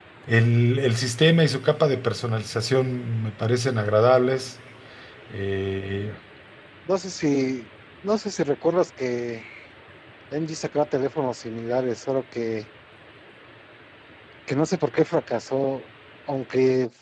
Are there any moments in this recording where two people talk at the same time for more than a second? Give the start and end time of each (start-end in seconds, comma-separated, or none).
none